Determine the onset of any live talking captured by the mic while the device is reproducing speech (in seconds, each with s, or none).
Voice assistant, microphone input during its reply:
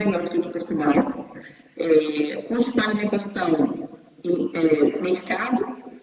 none